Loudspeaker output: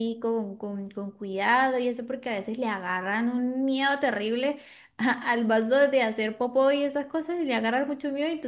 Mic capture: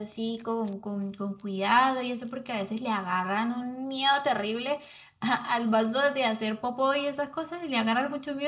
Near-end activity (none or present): none